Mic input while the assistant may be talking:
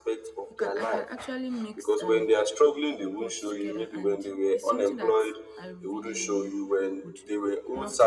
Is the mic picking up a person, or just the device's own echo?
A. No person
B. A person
B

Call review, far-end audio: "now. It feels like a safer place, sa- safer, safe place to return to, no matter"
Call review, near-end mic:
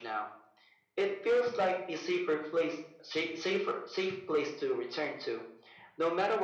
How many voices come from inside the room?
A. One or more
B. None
B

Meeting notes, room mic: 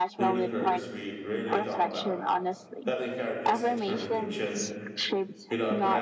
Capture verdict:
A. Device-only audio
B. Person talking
B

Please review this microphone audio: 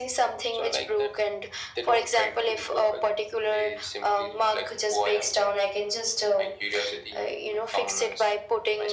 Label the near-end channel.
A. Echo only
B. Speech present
A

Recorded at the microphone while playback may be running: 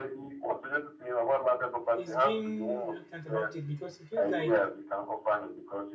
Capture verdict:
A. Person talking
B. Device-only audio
A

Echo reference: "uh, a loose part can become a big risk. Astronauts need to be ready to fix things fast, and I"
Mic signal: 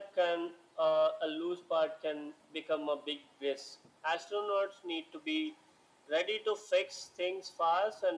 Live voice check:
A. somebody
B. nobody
B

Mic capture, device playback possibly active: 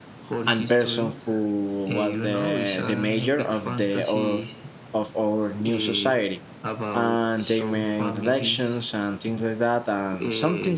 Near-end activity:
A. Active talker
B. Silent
A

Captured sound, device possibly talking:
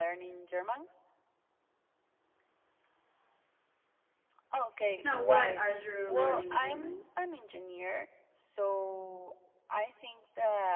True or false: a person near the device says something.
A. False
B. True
B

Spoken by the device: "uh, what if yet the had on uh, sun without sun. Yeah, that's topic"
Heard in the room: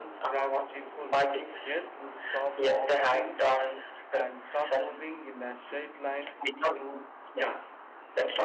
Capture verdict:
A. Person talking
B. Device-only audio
A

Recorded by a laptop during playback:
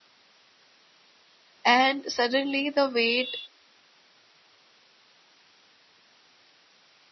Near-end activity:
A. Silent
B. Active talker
B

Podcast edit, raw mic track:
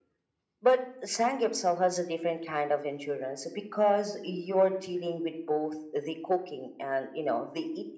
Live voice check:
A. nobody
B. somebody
A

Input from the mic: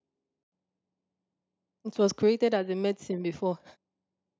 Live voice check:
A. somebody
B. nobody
A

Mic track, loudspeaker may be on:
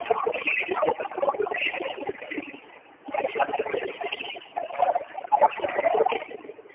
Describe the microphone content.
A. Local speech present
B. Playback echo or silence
B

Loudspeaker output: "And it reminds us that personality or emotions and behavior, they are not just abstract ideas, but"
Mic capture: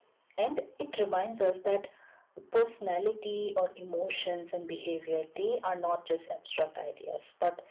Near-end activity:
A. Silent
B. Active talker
A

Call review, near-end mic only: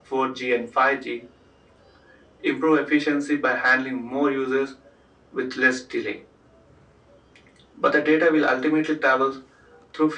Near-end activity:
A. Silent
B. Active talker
A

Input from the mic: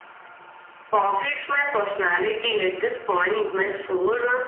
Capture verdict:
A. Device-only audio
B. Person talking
A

